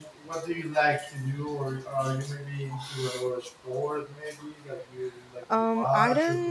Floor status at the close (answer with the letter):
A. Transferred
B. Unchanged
A